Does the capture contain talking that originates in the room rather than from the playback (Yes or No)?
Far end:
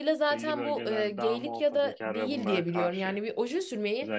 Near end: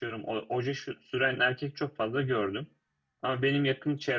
Yes